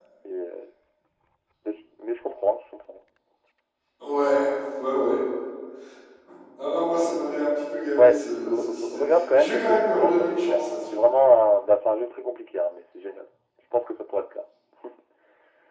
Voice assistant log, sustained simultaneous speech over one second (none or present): present